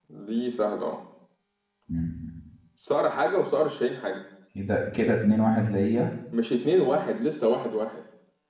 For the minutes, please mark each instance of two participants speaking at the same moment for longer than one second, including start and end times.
none

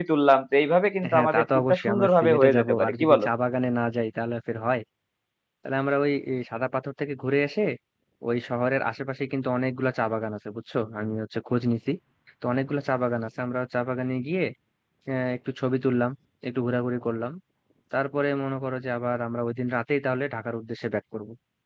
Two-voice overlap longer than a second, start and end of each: 1.1-3.2

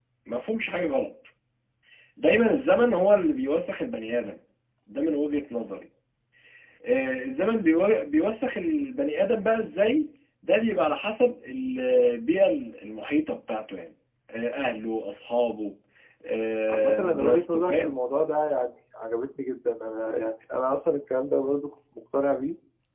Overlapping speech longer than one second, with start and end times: 16.7-17.9

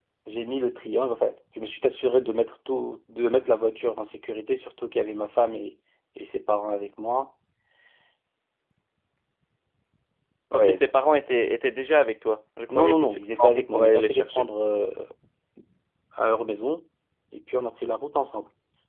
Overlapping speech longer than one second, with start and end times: 12.7-14.4

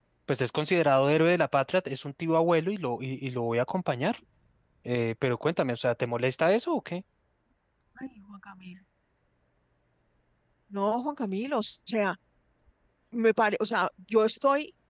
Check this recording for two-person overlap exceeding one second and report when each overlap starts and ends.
none

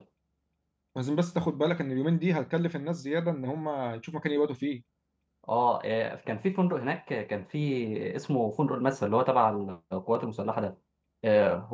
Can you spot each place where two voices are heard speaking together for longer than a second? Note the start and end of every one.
none

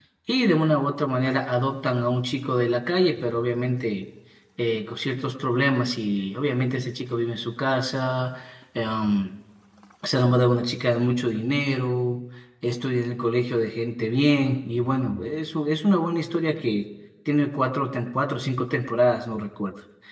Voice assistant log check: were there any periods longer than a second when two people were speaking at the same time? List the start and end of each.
none

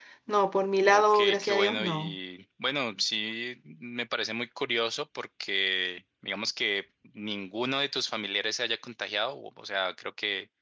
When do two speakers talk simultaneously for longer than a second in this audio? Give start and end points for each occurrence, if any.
0.8-2.2

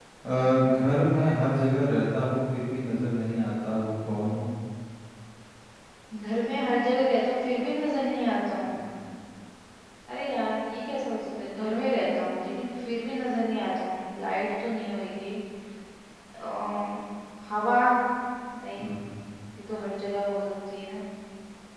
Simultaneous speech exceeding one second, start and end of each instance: none

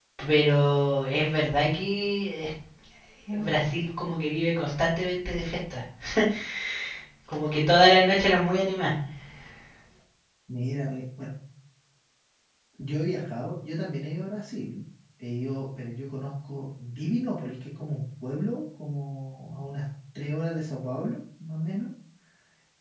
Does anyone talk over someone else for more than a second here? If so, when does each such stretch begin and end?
none

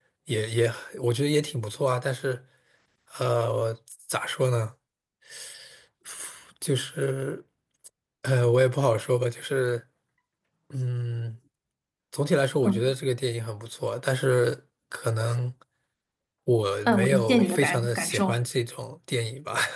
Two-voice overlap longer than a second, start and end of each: 16.8-18.4

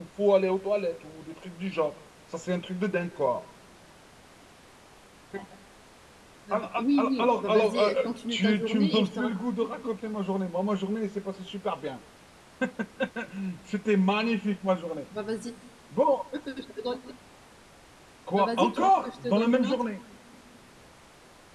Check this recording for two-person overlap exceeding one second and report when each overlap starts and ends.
6.5-9.4, 18.4-19.8

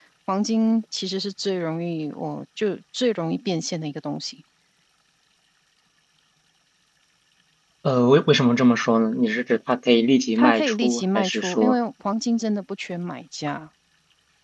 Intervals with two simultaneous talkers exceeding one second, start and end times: 10.4-11.8

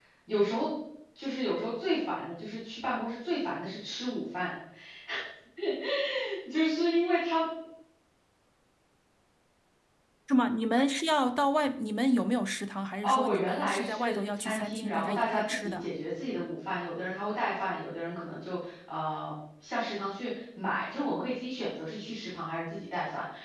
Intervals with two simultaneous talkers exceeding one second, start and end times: 13.0-15.9

